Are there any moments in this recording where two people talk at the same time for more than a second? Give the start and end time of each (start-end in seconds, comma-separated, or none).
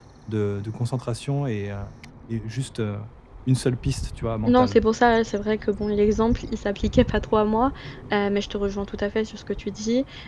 none